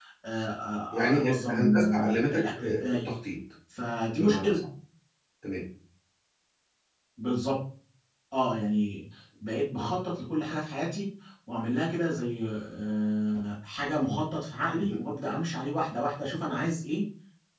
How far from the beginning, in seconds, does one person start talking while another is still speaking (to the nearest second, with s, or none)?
1 s